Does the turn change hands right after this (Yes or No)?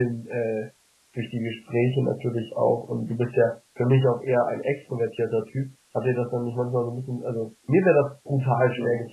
No